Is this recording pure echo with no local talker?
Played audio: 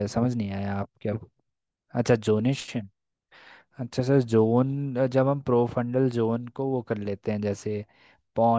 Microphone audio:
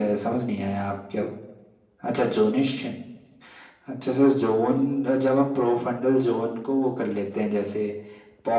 Yes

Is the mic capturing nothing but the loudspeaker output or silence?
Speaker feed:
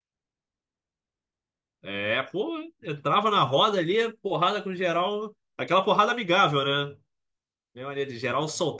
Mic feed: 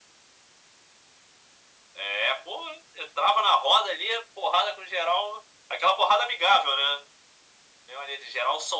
Yes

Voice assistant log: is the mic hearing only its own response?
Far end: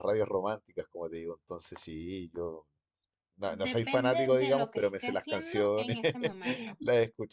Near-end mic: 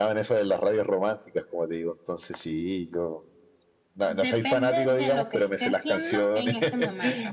Yes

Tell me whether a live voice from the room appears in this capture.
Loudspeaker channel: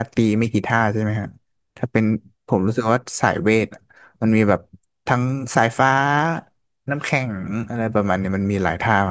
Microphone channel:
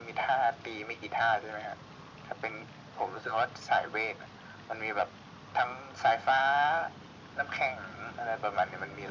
No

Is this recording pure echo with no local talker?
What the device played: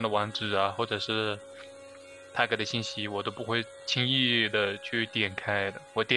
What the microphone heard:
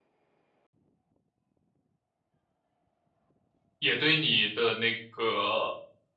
No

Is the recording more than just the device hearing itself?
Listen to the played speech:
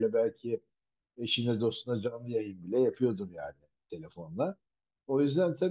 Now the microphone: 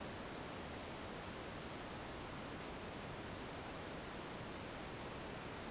No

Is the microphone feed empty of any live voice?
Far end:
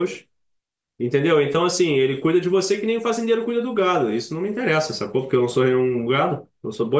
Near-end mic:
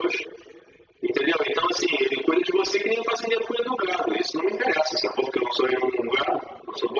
Yes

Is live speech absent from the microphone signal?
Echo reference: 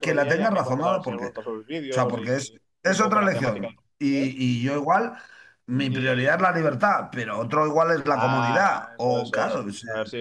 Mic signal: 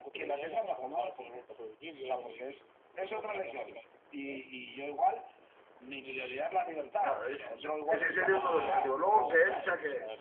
No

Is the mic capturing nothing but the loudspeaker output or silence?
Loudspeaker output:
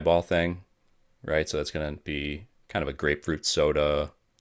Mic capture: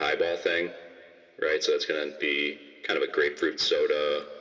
Yes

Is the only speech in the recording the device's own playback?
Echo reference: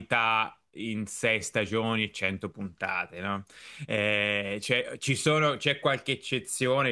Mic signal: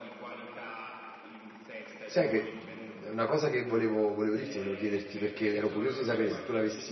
No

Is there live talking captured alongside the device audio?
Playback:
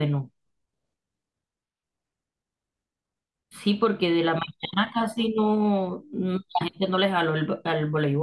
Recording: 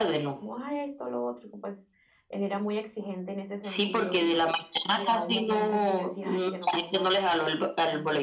Yes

